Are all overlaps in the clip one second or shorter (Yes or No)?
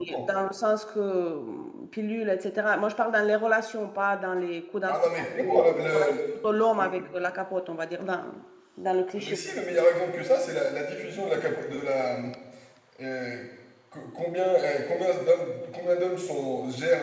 No